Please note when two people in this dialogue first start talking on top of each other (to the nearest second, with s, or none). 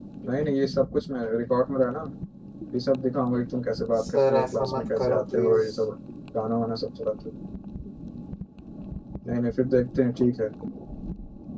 4 s